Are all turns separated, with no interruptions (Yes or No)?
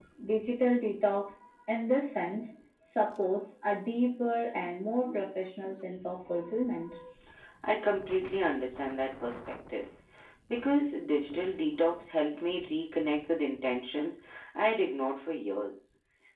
Yes